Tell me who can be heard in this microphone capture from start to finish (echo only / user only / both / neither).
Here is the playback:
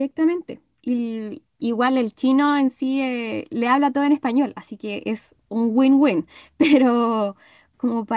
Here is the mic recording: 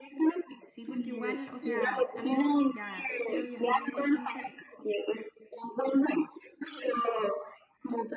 both